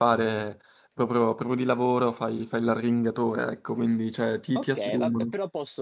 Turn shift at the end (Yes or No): Yes